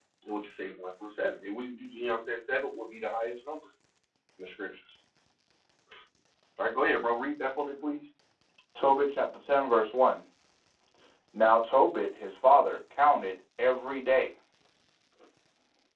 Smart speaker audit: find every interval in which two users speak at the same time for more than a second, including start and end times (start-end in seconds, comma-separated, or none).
none